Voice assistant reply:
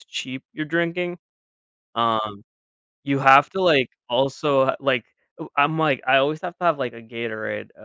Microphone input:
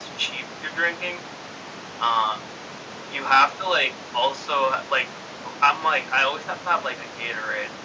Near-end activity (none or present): none